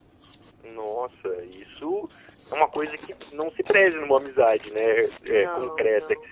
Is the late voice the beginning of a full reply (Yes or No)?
No